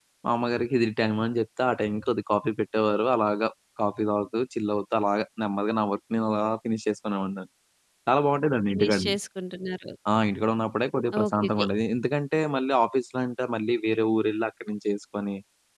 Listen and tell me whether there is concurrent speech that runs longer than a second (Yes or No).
No